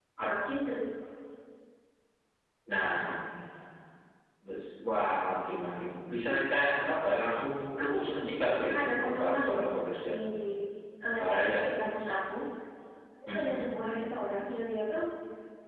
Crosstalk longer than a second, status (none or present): present